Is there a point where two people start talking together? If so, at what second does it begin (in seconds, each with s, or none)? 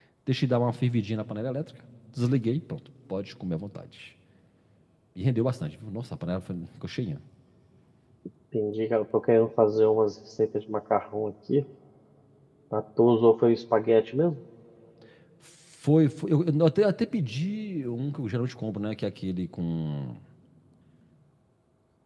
none